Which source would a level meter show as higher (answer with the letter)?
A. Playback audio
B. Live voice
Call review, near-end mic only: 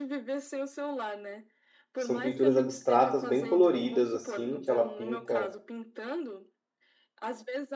B